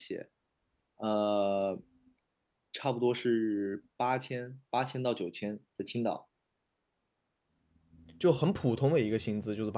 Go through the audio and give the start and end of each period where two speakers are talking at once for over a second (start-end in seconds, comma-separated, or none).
none